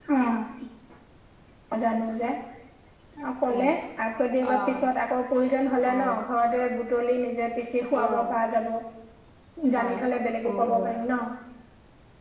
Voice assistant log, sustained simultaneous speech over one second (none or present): none